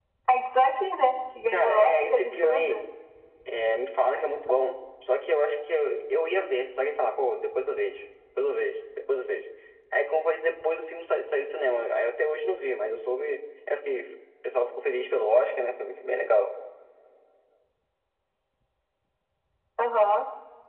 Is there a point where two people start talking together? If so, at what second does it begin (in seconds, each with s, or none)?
1.5 s